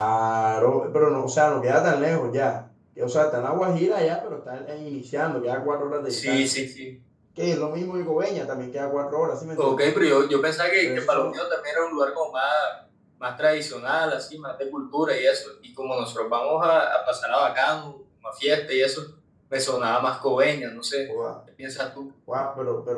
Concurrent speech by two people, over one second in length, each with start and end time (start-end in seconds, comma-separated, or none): none